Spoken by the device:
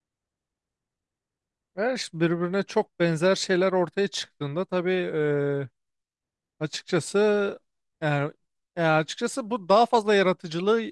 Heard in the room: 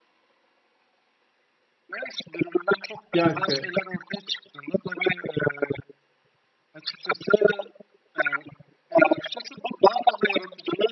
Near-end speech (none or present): present